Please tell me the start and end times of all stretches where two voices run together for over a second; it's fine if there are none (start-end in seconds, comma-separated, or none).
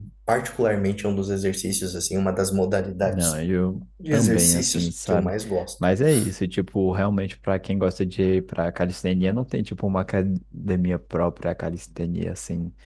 4.1-5.3